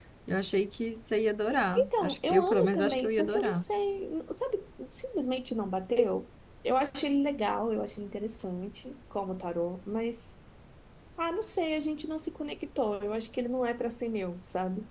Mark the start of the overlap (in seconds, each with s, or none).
1.8 s